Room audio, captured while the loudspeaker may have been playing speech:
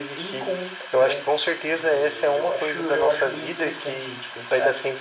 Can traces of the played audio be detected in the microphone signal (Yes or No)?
Yes